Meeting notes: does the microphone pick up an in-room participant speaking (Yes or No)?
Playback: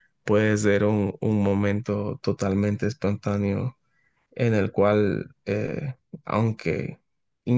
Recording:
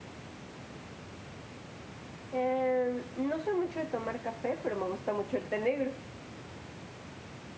Yes